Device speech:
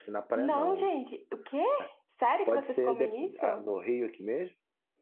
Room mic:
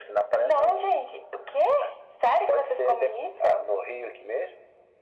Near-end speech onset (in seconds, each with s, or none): none